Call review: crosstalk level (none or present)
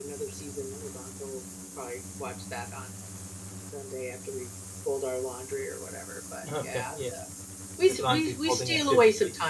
present